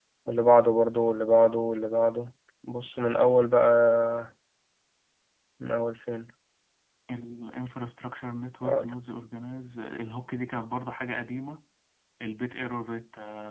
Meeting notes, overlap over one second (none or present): none